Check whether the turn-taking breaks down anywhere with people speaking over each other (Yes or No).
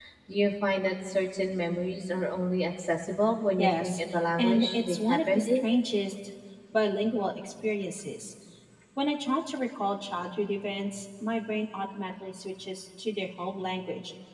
Yes